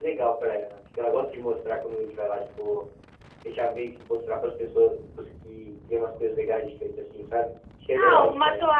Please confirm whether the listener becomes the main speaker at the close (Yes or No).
Yes